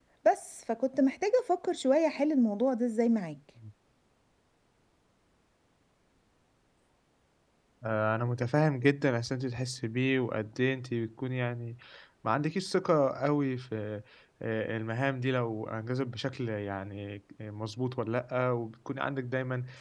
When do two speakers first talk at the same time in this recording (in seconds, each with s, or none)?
none